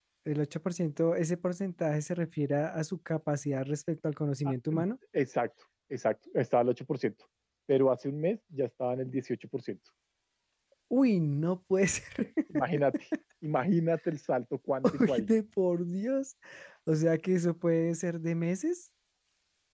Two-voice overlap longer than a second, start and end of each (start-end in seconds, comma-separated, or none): none